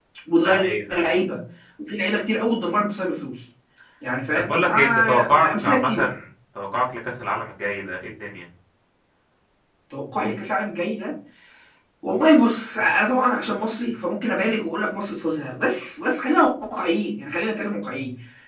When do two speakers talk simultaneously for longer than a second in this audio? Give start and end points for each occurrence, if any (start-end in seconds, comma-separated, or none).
4.3-6.0